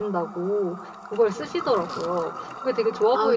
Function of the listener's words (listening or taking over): taking over